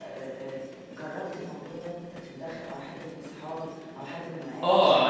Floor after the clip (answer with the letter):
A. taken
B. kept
A